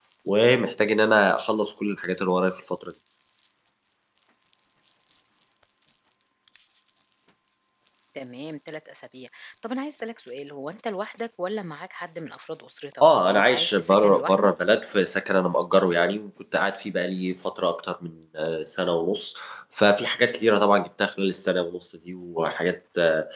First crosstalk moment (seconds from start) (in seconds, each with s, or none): 13.0 s